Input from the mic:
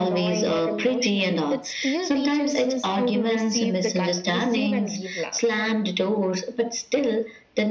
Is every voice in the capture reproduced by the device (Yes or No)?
Yes